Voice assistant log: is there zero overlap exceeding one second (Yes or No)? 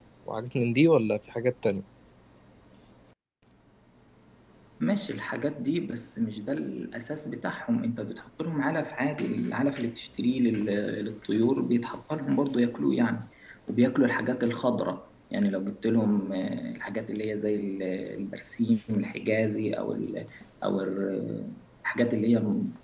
Yes